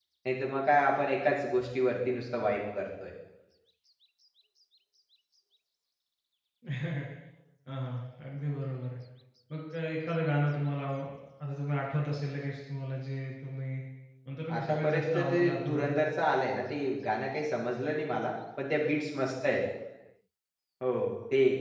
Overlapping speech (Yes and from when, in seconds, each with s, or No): Yes, from 14.5 s